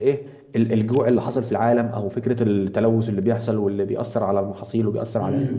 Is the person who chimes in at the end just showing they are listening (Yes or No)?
No